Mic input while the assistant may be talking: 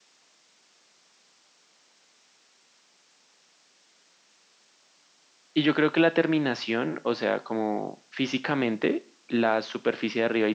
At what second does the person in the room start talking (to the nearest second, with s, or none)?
6 s